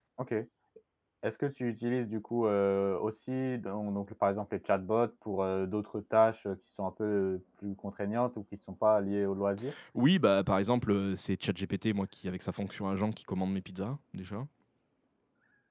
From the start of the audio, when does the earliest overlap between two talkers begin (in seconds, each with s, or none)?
none